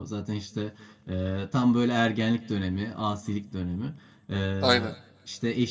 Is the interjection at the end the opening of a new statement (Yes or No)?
No